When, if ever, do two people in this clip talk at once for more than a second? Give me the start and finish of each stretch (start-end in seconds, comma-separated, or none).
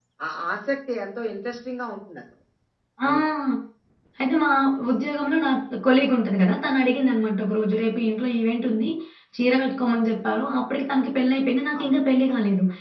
none